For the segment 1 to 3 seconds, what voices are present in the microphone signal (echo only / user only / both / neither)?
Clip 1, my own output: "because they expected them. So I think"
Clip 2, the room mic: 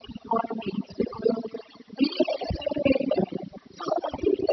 echo only